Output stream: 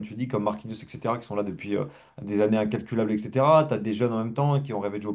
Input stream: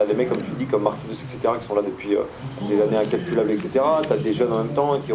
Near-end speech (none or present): present